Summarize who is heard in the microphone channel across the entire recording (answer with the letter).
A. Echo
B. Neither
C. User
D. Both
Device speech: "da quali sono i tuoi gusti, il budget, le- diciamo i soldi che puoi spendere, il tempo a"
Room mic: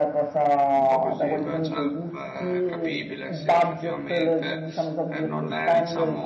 D